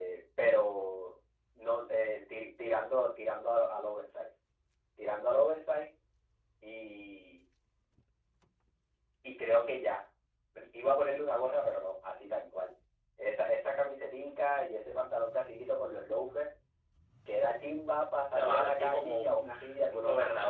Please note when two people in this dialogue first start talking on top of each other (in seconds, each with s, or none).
18.3 s